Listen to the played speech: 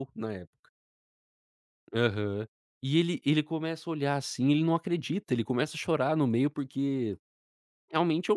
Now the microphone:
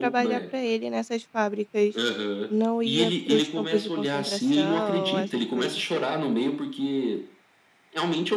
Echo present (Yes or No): Yes